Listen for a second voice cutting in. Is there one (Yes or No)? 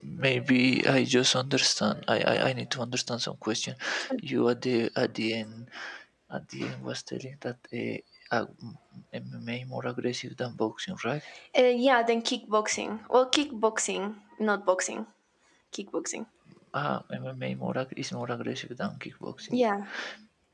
No